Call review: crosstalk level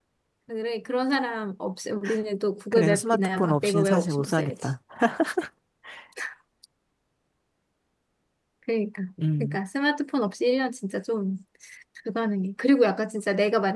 present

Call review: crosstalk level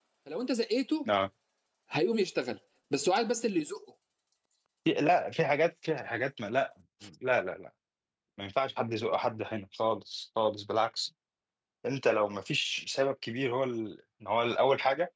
none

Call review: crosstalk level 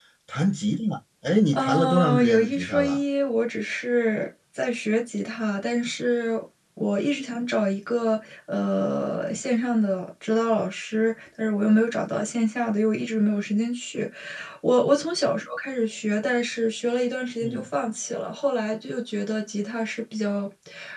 present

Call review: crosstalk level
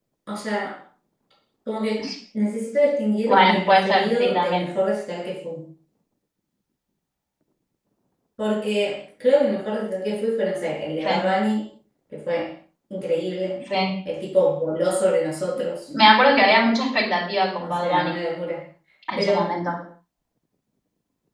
present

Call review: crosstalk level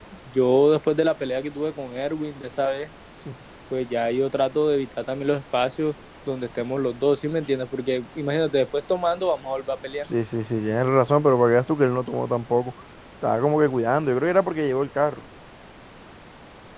none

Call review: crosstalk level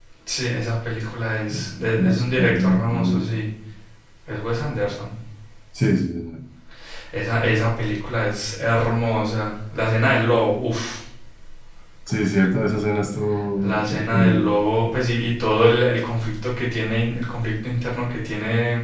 present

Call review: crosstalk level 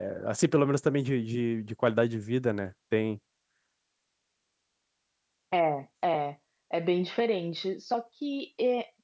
none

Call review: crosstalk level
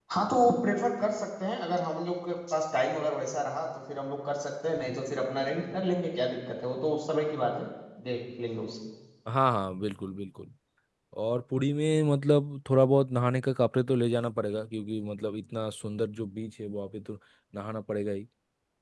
none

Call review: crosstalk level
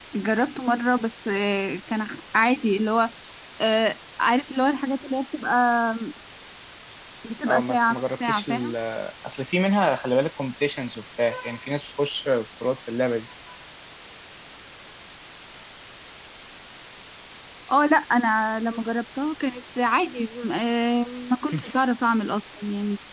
present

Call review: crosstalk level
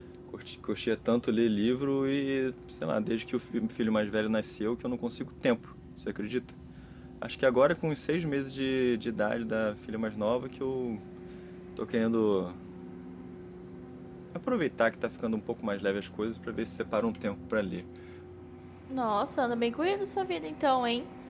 none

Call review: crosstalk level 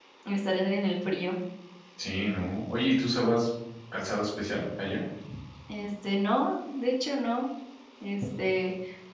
none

